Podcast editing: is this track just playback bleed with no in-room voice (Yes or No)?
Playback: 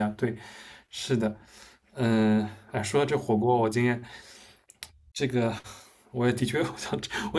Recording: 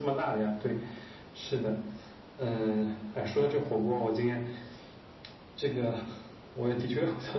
Yes